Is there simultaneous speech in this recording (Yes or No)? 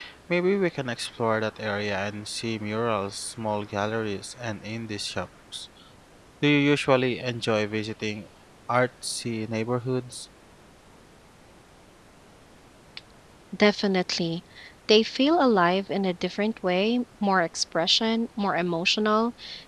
No